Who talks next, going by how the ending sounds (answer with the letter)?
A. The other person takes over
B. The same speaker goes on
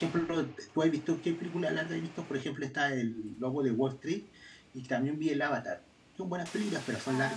A